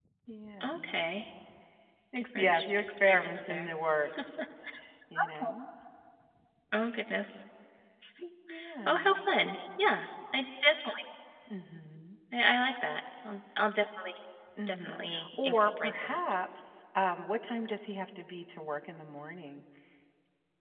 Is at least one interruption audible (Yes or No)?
Yes